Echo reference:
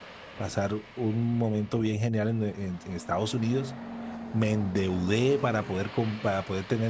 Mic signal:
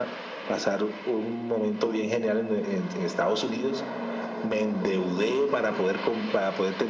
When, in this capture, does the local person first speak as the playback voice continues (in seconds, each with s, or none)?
none